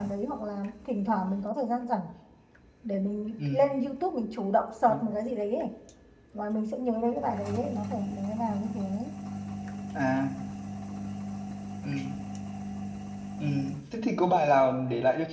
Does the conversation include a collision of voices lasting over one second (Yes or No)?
No